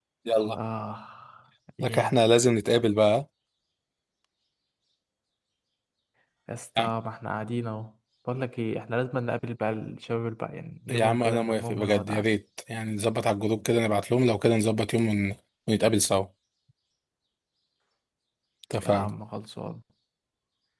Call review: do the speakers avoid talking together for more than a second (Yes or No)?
No